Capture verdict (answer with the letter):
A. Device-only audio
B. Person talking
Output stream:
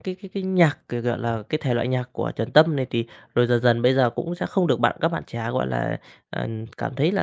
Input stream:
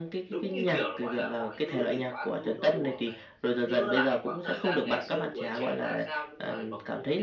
B